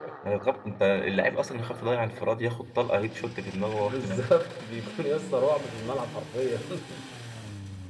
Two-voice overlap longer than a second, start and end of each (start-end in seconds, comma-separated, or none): none